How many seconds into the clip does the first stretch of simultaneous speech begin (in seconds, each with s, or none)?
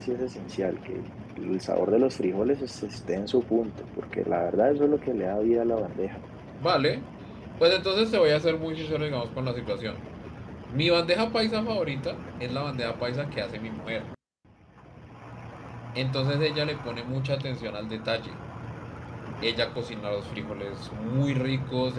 none